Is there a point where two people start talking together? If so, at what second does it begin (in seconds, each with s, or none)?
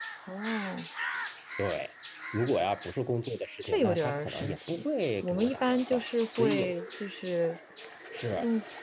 3.6 s